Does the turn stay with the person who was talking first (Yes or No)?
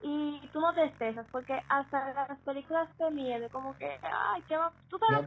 No